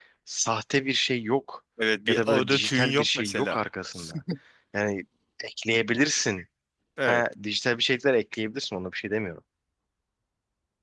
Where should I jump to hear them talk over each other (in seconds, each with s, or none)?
2.1 s